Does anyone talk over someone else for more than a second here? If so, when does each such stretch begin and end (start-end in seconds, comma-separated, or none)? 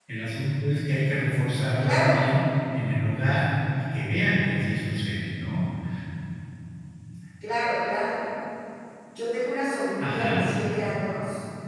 none